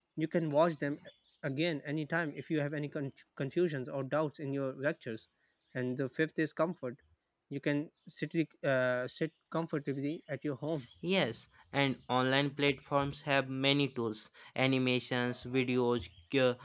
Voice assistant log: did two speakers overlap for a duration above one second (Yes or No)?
No